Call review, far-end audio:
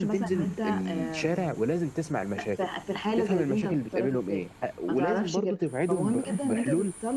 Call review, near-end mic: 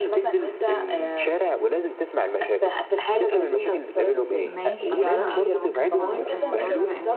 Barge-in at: 4.4 s

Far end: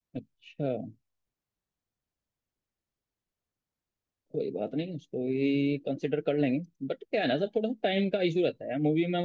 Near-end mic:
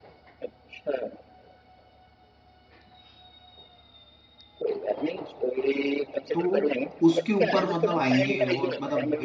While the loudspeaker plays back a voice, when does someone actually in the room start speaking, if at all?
6.3 s

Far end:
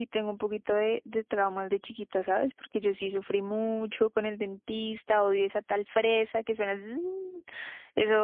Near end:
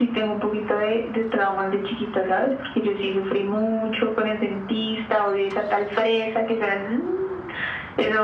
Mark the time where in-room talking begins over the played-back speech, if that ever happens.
none

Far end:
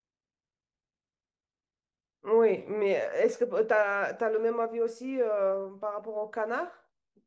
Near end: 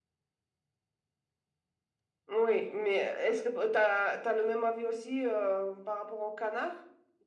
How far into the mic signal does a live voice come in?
none

